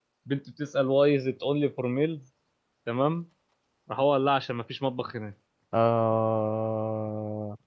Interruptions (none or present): none